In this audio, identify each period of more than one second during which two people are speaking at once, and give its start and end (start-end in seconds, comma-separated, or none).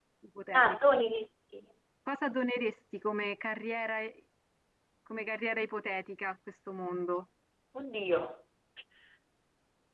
none